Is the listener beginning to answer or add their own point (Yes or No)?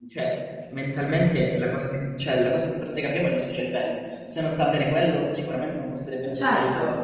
Yes